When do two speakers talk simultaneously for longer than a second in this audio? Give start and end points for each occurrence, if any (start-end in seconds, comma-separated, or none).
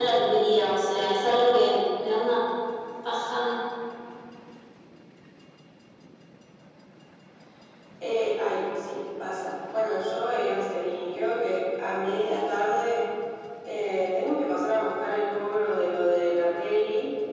none